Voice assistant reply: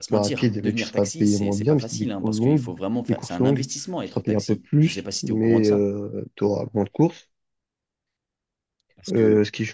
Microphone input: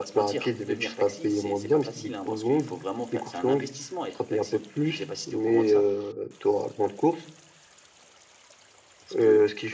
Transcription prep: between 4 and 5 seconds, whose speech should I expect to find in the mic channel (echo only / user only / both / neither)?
echo only